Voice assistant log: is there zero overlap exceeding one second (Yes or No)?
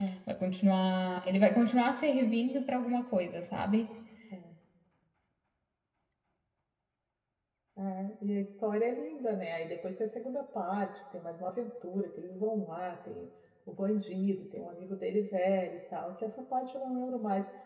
Yes